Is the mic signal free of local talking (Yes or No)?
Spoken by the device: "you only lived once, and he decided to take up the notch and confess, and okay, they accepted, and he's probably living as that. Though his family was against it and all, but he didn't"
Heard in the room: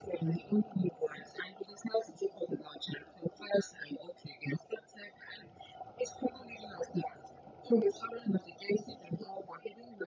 Yes